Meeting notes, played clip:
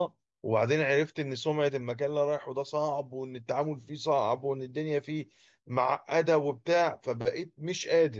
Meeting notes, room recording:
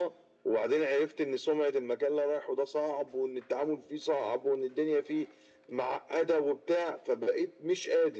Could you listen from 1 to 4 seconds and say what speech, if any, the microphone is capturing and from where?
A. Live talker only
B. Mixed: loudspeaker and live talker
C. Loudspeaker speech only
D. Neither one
C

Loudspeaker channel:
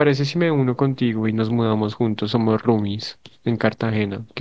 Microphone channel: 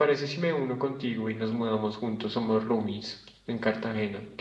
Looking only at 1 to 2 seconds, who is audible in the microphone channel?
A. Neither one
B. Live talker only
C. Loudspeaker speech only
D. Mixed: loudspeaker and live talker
C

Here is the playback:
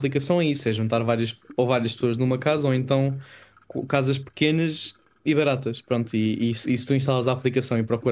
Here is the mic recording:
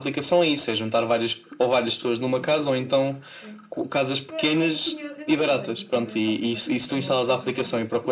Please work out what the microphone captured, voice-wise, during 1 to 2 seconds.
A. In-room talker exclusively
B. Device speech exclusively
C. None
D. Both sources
B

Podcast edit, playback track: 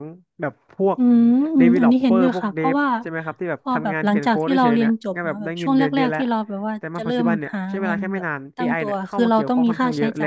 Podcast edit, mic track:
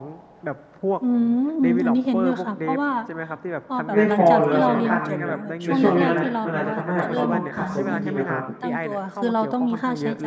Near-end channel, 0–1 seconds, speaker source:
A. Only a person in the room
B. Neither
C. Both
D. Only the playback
D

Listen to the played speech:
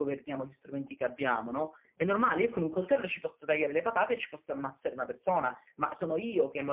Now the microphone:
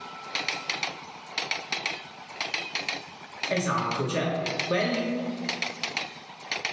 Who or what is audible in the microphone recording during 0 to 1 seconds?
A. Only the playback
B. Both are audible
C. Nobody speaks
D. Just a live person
C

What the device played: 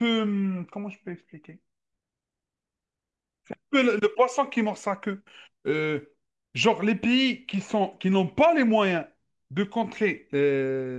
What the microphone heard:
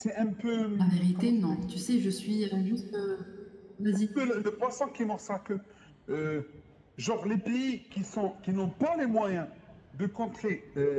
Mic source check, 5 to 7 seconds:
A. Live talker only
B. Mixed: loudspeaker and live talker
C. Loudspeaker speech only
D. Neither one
C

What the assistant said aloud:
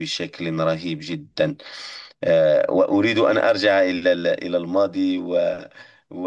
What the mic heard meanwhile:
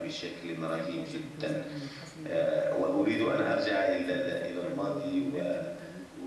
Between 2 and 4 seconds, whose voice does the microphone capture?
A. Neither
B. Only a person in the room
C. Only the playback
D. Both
D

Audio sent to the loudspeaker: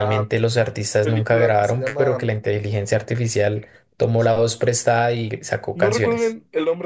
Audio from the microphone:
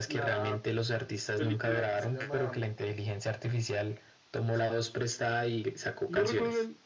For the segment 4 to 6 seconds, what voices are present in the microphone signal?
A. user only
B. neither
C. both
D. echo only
D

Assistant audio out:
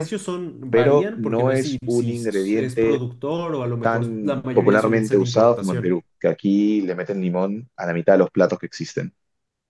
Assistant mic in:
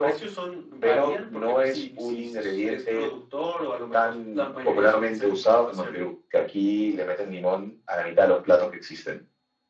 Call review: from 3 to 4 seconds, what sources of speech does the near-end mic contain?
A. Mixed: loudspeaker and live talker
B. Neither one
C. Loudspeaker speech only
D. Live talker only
C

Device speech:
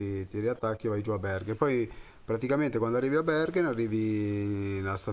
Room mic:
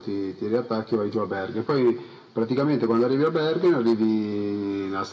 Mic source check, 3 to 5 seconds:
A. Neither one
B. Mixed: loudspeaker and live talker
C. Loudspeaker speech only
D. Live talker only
C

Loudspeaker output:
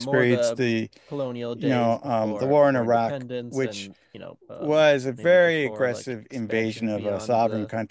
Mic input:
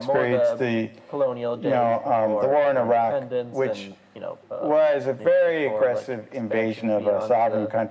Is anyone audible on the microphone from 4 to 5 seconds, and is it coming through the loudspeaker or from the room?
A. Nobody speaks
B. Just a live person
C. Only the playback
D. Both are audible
C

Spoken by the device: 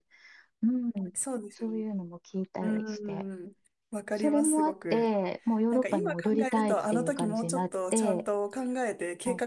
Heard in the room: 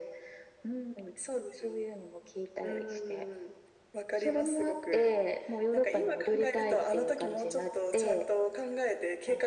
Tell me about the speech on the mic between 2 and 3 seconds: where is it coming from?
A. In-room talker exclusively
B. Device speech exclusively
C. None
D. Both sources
B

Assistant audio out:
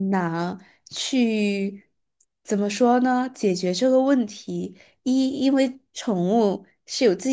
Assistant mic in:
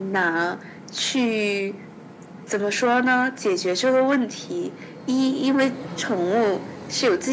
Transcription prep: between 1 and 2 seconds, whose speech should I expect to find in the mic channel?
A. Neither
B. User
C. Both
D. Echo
D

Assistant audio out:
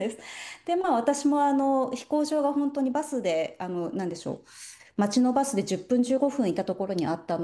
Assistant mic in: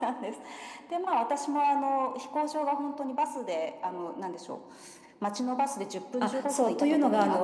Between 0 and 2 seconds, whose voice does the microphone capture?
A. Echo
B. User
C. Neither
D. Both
A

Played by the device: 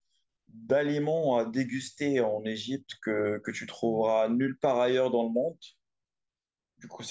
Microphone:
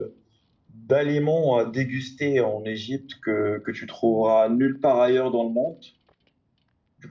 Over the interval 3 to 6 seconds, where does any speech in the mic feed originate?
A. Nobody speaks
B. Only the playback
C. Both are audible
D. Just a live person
B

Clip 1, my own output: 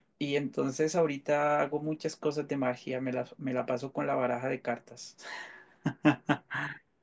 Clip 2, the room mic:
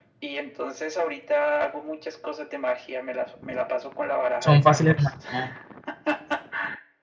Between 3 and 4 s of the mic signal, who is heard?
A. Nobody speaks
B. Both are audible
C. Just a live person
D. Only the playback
D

